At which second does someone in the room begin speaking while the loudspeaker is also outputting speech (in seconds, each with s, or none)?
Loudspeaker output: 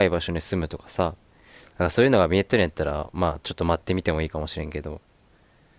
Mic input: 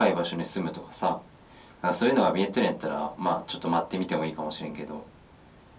none